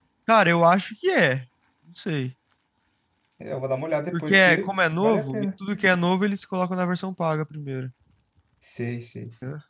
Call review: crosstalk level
present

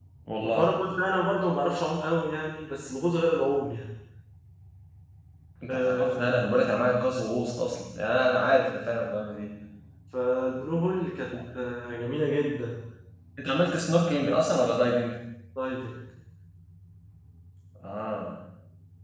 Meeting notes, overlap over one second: none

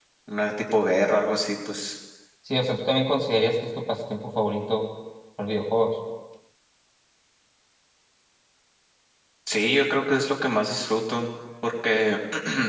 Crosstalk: none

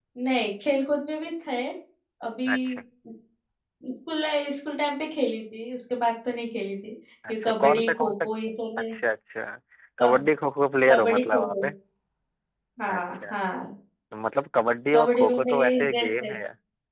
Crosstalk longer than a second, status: present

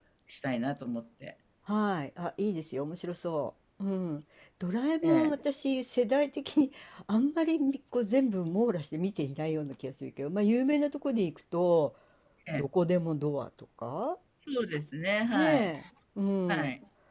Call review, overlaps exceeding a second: none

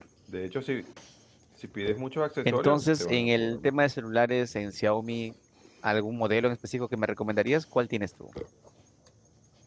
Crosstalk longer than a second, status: present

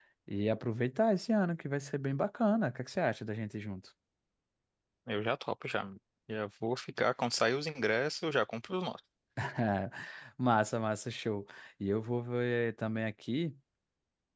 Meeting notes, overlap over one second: none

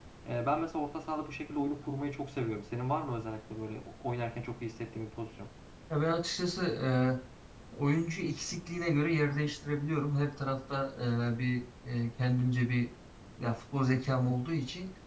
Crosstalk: none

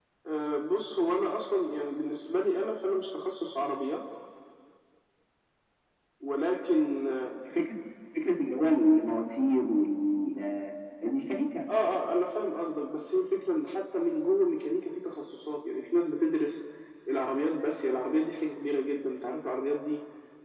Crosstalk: none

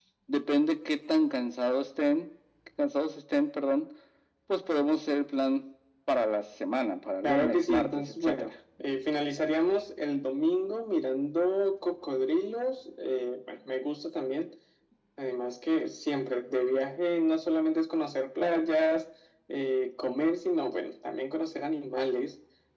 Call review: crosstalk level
present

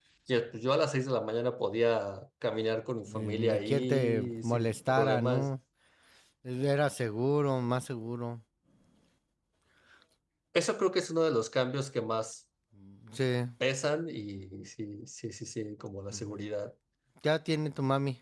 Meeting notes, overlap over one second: present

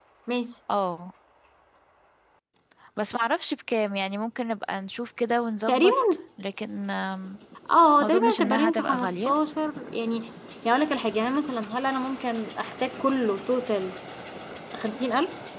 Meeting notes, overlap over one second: present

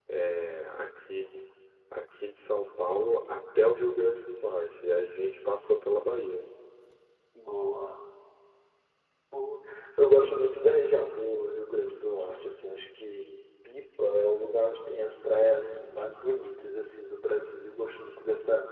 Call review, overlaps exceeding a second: none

